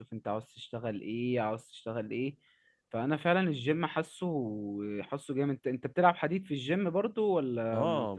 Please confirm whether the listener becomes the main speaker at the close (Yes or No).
Yes